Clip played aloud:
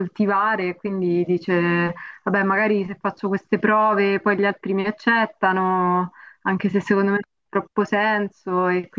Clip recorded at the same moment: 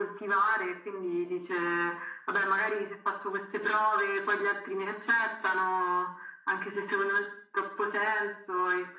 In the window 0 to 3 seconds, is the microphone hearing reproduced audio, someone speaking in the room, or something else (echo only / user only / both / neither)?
echo only